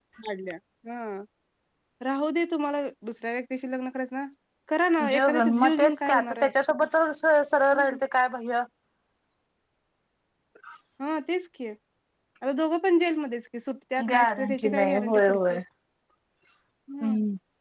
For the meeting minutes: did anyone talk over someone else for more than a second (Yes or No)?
Yes